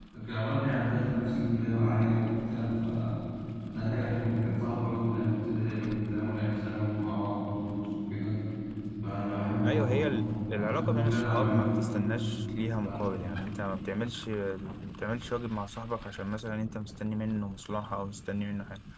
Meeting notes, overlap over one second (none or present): present